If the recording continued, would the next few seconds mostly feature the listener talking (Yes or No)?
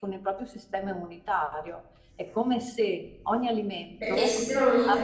Yes